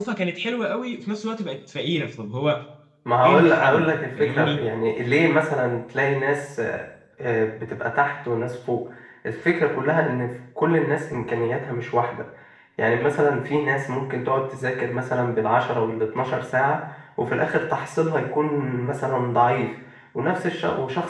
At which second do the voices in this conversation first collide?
3.2 s

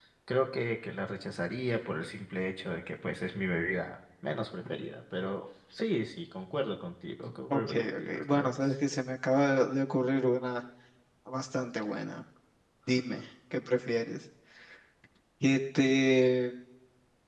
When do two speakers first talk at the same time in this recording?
7.5 s

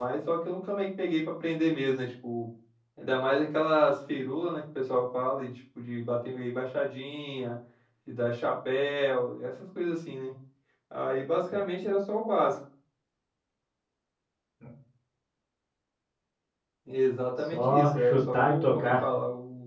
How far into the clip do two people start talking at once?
17.5 s

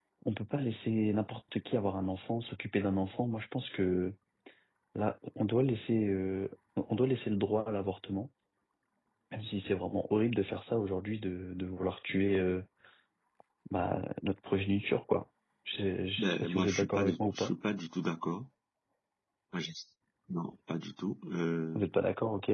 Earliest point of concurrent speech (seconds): 16.2 s

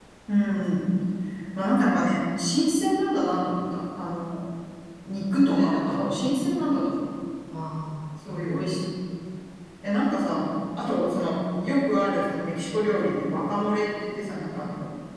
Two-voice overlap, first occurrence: 5.3 s

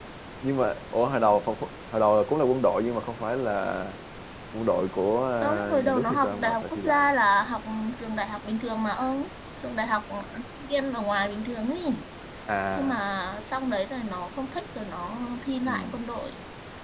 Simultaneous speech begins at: 5.4 s

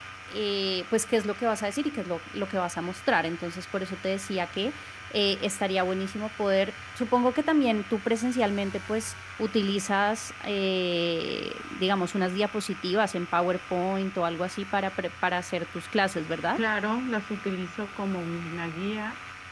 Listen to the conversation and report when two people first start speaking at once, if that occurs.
none

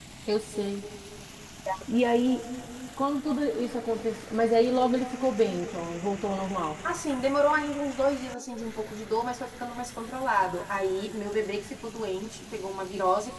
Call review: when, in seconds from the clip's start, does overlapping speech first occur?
none

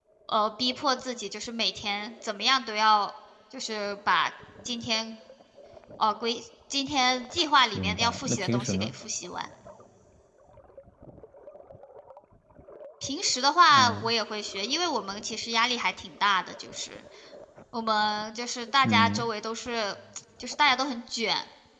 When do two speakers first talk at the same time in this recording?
7.7 s

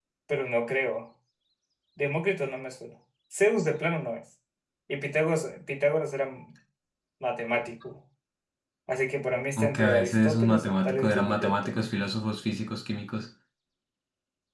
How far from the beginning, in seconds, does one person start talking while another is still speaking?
9.6 s

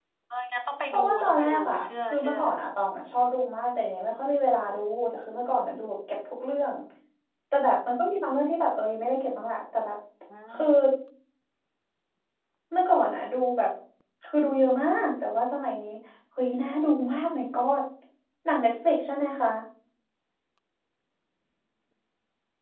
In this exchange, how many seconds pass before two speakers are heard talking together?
0.9 s

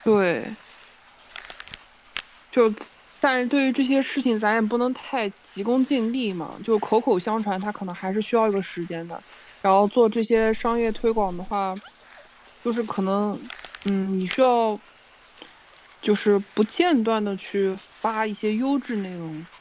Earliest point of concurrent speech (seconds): none

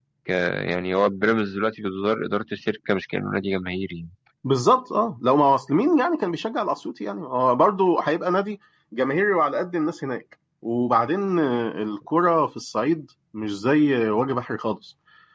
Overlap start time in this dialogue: none

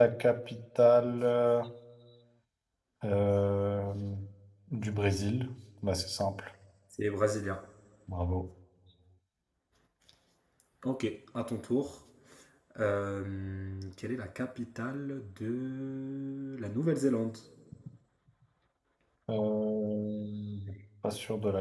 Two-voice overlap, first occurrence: none

